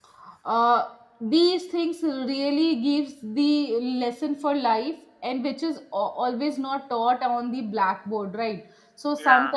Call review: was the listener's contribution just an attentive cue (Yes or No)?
Yes